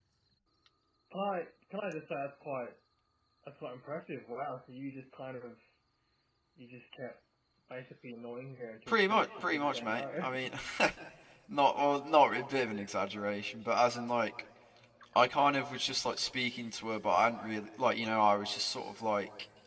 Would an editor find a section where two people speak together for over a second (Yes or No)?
Yes